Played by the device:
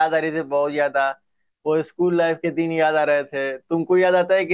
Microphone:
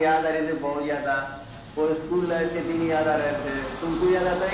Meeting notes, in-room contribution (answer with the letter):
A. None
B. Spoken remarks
A